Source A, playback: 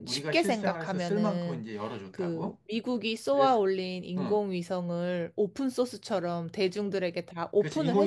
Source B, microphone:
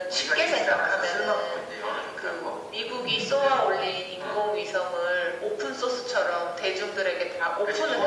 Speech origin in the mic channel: both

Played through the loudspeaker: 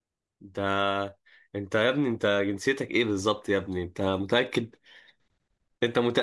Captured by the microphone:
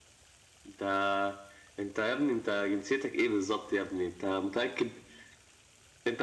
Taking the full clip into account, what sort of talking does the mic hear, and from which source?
echo only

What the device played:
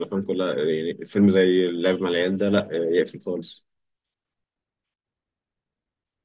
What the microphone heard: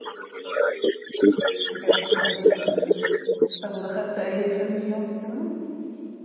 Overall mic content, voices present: both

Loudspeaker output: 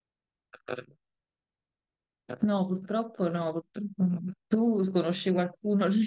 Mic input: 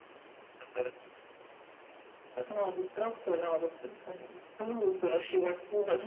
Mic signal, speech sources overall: echo only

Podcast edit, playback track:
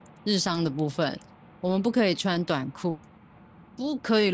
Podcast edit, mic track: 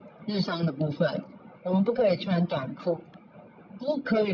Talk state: echo only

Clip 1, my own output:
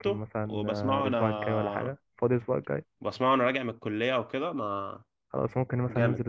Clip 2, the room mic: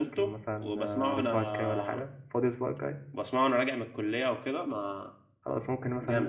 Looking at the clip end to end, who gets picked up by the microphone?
echo only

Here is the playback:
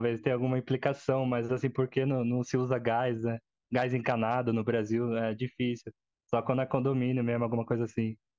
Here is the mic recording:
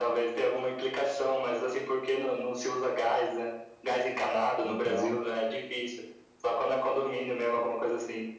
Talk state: both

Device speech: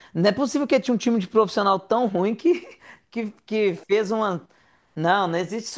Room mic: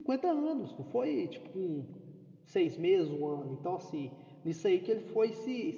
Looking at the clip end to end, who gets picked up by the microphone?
user only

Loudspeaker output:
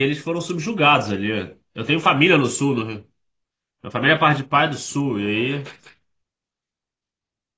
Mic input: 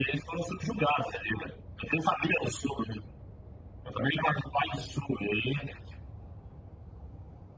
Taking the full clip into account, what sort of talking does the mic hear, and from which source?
echo only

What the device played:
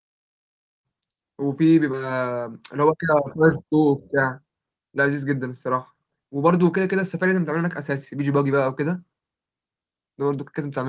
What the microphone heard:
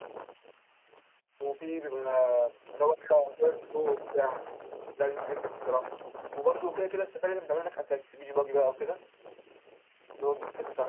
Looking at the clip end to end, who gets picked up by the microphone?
echo only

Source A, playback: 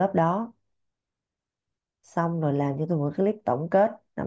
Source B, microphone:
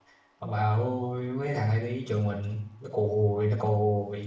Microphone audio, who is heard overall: user only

